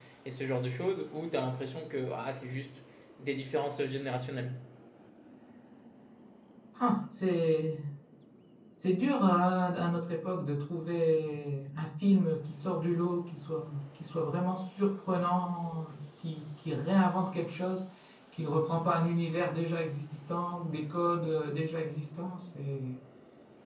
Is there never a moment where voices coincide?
Yes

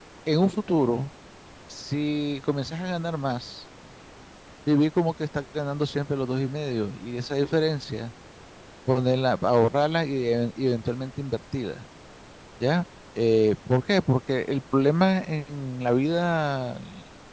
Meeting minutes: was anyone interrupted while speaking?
No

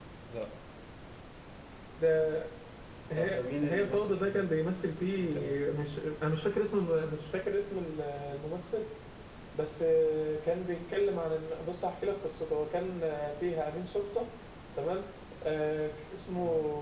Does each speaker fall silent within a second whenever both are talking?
No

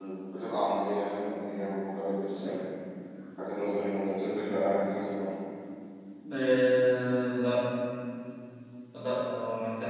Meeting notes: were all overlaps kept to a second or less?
Yes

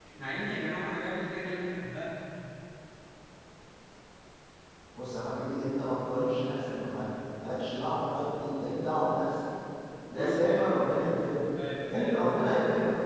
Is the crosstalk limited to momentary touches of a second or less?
No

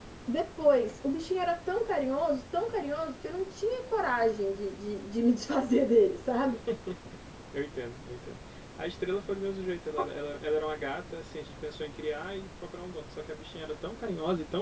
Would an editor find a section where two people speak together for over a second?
No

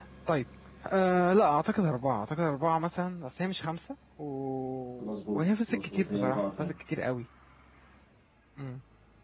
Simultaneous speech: Yes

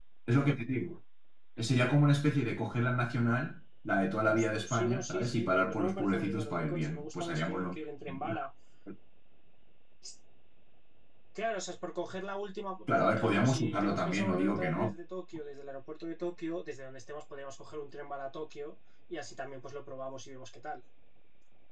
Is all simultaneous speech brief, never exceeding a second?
No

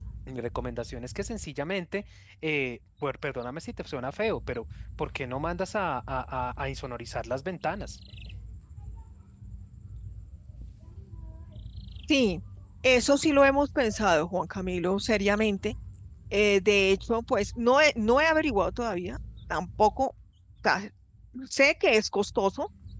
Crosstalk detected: No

